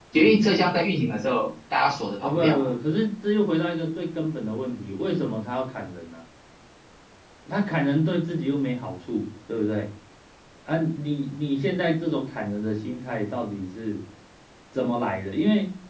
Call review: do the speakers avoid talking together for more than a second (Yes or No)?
Yes